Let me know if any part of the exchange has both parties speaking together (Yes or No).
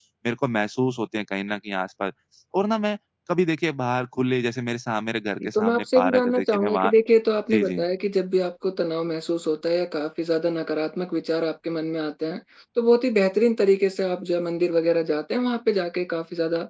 Yes